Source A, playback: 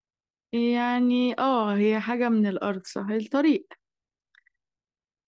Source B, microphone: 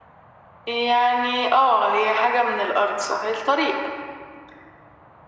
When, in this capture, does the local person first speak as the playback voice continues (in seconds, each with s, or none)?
none